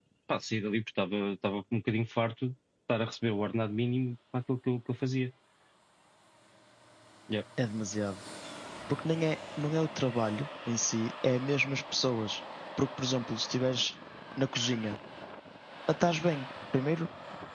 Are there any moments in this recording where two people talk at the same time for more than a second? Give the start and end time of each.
none

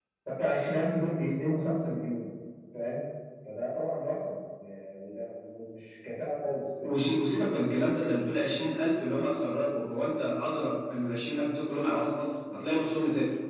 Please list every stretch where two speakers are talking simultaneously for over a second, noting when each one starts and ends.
none

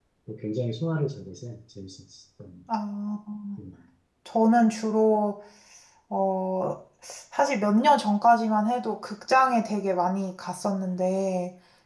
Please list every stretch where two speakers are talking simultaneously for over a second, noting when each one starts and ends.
none

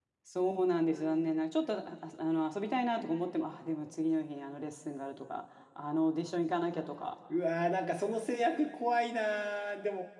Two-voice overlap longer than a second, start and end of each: none

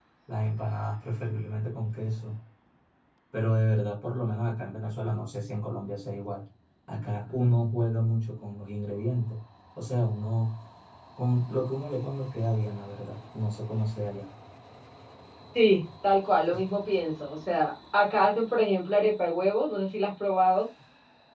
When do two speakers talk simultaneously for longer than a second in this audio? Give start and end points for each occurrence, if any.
none

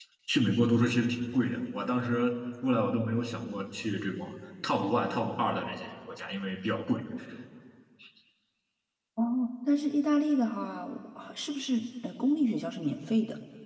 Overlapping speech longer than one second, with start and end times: none

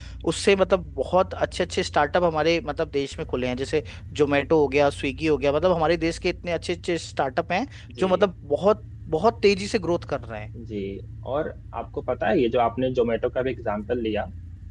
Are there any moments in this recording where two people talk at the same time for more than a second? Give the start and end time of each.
none

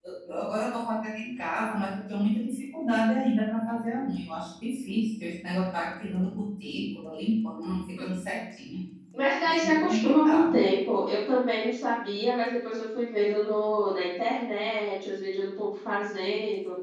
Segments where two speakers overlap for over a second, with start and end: 9.4-10.7

